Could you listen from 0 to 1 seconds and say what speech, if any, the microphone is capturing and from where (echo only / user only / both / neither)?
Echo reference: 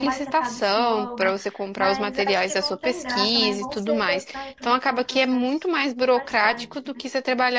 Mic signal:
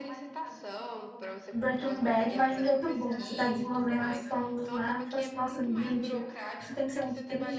echo only